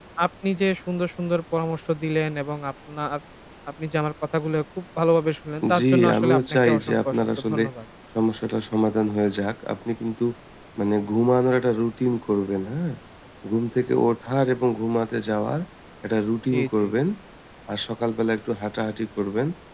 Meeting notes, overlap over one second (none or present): present